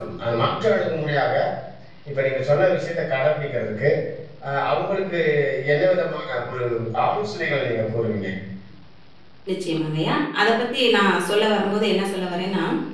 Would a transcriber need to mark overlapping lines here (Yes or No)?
No